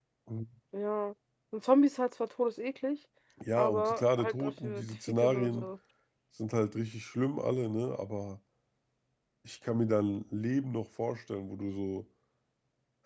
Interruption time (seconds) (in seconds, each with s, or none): 3.6 s